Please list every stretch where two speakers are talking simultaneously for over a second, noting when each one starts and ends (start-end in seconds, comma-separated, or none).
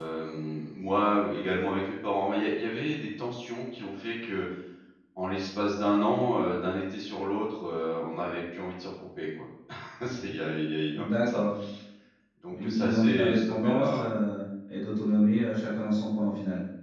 12.5-14.1